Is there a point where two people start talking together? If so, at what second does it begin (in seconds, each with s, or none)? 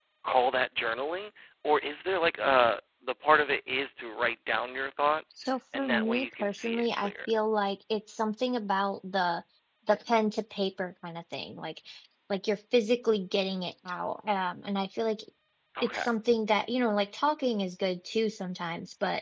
5.8 s